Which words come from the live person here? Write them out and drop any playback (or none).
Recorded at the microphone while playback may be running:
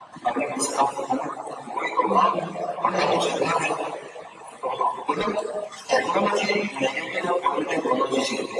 हुँ, राइट,